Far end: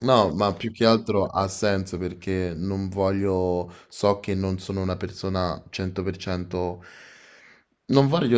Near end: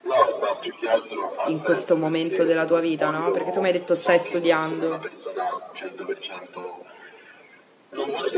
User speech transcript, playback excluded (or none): in questo momento della tua vita, no? Perché tu mi hai detto stai studiando.